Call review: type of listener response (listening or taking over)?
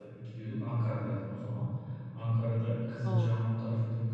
listening